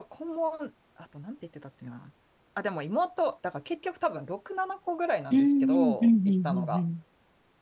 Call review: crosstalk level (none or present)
present